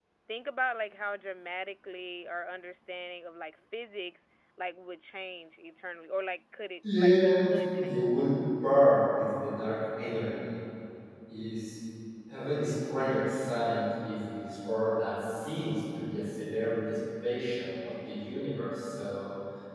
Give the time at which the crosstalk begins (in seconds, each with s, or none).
6.8 s